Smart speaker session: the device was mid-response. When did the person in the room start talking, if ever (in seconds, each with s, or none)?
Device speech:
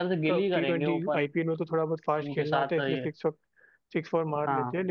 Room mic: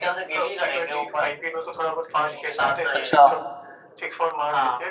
2.9 s